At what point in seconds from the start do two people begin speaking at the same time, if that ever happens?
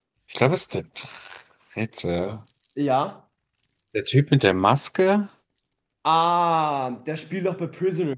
none

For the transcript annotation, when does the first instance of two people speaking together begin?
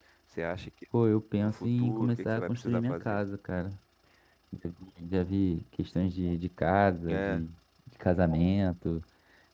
1.4 s

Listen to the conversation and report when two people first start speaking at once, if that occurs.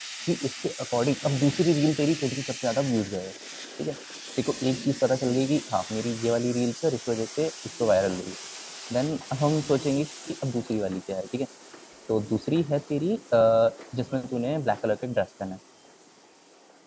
none

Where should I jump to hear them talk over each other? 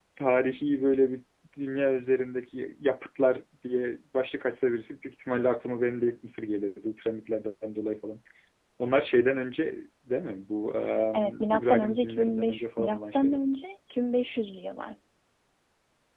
11.1 s

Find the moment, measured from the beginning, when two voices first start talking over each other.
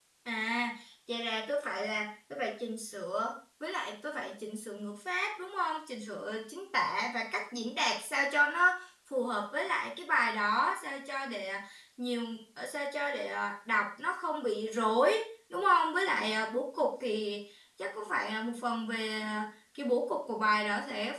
none

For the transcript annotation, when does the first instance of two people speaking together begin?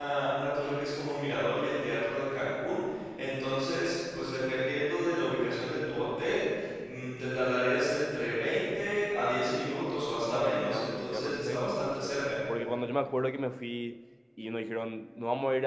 10.2 s

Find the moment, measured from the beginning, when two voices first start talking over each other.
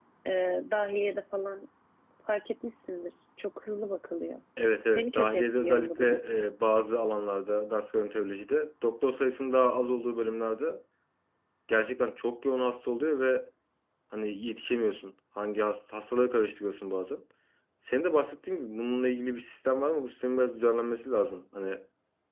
4.9 s

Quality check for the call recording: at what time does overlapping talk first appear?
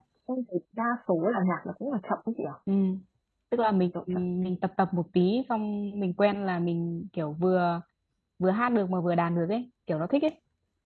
none

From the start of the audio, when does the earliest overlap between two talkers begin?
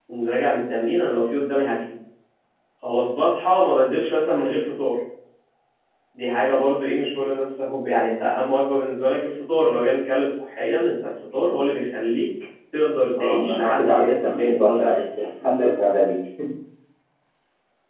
13.2 s

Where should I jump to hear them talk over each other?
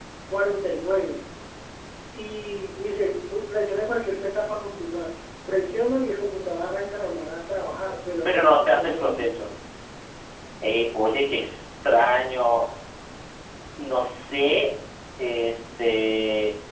8.2 s

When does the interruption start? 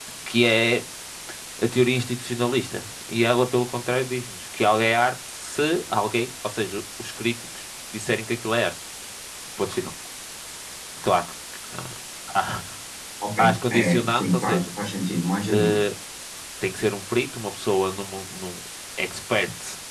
13.4 s

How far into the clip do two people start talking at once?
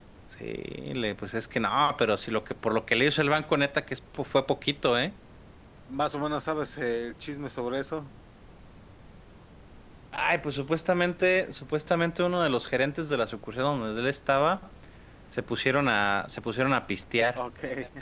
none

